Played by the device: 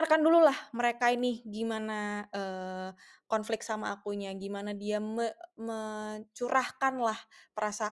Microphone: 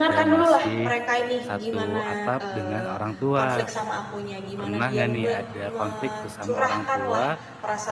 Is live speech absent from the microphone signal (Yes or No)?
No